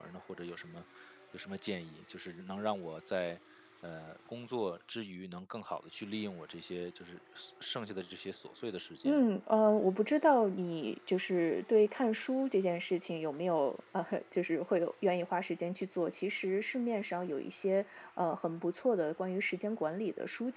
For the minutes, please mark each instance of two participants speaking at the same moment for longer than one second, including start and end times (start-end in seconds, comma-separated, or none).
none